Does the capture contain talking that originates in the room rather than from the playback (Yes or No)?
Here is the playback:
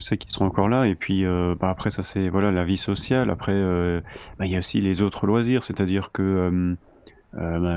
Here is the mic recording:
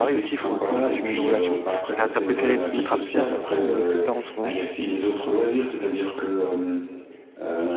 Yes